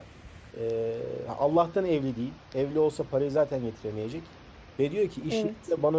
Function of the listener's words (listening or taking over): listening